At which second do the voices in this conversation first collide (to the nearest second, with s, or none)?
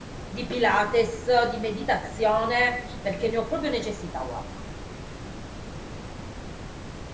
none